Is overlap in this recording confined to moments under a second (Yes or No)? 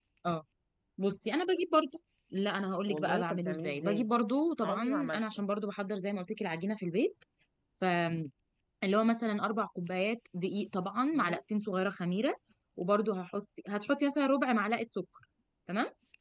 No